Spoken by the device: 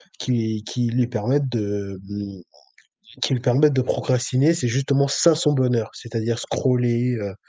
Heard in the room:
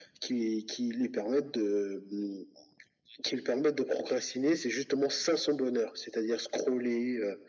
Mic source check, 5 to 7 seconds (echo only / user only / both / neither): echo only